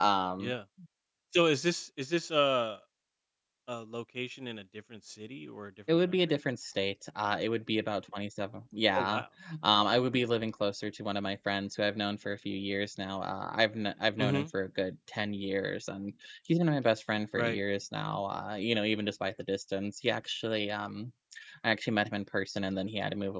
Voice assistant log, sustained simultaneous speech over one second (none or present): none